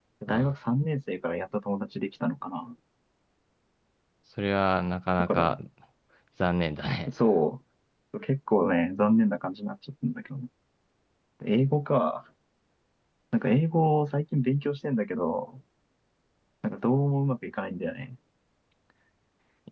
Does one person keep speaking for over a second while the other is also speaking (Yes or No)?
No